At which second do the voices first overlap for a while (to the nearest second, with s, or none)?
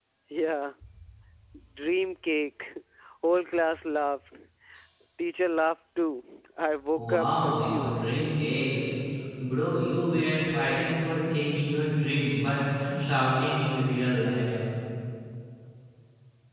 7 s